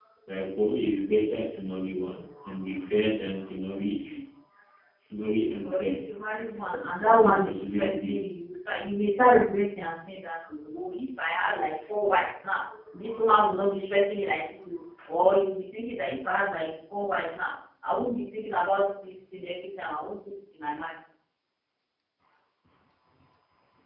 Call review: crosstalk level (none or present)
present